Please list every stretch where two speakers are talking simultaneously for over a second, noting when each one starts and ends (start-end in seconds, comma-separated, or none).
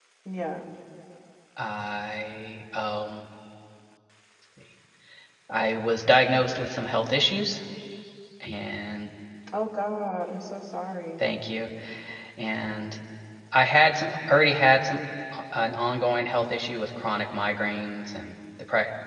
none